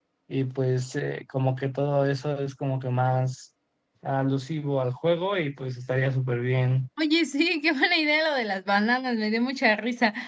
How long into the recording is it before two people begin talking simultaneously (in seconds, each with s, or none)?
none